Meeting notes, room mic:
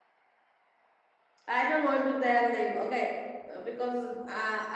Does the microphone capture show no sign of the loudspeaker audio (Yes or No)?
Yes